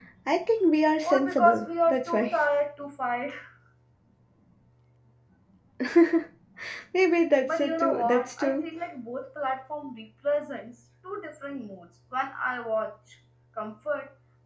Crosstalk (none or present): present